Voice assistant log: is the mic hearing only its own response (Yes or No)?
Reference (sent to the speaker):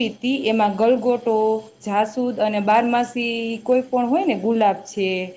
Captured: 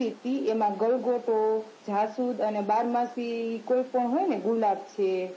Yes